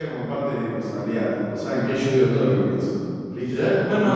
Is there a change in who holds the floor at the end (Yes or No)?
Yes